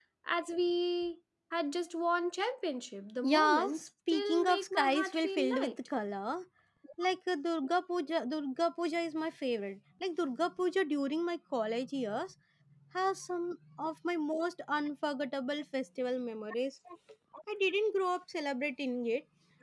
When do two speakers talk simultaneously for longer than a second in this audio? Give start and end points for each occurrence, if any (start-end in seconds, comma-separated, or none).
3.2-5.8